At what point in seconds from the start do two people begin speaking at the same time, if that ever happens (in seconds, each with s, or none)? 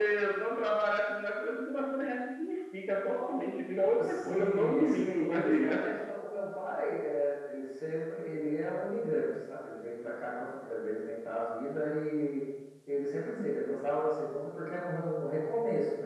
4.0 s